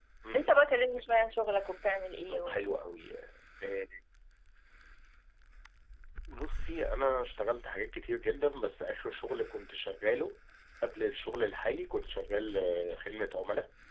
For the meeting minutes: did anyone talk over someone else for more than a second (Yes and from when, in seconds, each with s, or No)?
No